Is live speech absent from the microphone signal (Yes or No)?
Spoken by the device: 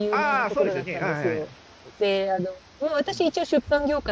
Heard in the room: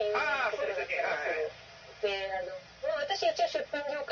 Yes